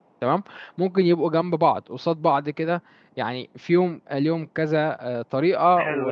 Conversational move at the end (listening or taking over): taking over